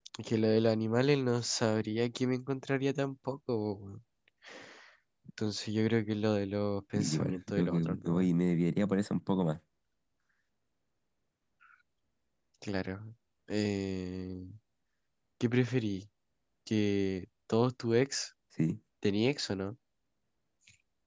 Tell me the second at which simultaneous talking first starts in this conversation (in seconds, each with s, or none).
6.9 s